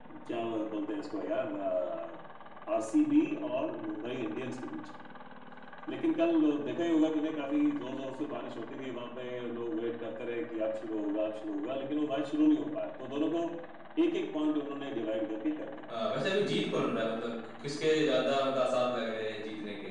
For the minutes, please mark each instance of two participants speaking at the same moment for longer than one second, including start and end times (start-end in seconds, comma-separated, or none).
none